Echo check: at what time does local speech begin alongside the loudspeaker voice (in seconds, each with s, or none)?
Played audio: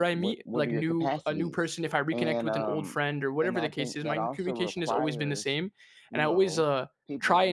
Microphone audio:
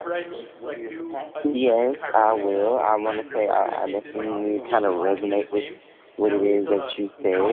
1.4 s